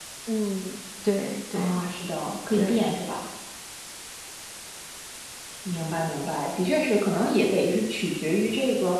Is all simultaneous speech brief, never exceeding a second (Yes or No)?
Yes